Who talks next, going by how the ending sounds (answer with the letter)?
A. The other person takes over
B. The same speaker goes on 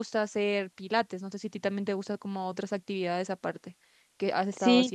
A